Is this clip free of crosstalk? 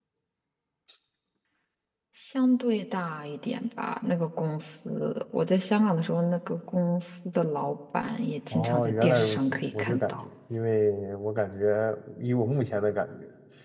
No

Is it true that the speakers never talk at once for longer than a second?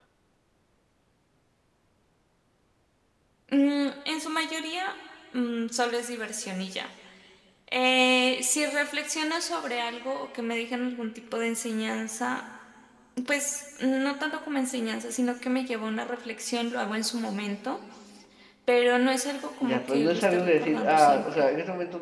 No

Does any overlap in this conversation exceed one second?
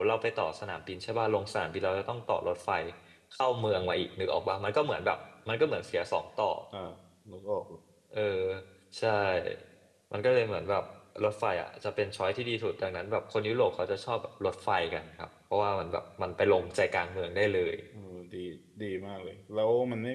No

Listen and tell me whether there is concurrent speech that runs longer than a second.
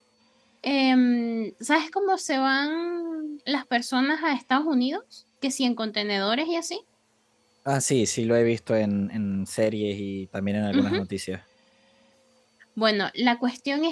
No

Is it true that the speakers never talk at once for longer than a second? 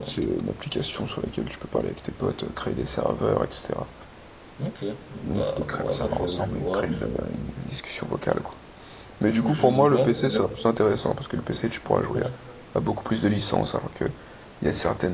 No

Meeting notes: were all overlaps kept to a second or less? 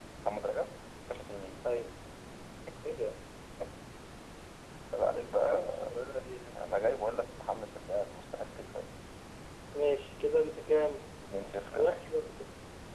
Yes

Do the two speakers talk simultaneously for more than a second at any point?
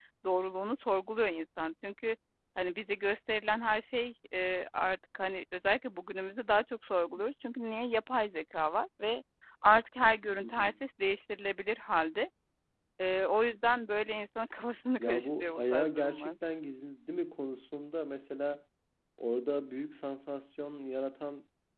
Yes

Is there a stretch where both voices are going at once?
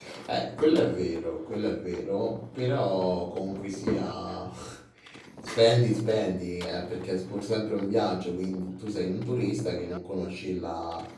No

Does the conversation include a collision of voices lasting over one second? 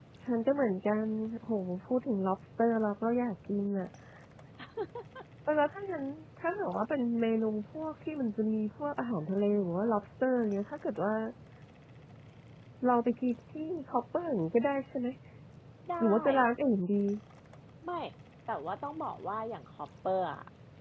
No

